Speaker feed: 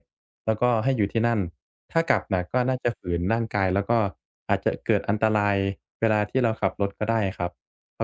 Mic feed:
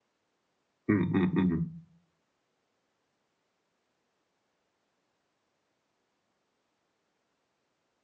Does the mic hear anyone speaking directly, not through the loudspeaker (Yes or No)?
Yes